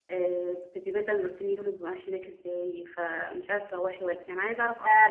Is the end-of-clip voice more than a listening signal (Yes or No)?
Yes